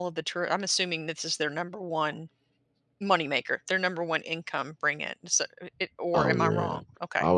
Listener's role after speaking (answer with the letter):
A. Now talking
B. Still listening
A